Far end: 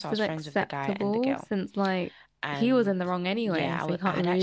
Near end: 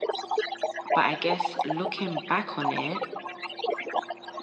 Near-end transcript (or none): But I guess looking back on it,